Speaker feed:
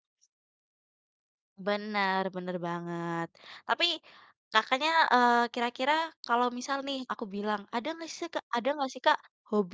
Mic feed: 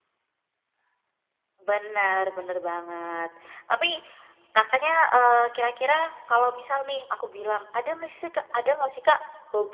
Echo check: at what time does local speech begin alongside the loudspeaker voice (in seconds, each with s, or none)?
none